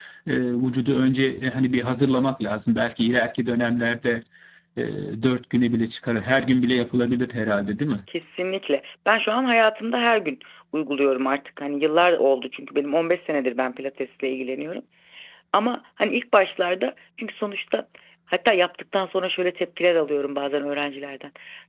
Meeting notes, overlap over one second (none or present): none